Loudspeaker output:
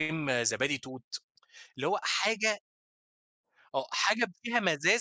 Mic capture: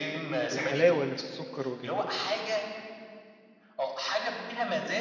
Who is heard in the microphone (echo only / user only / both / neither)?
both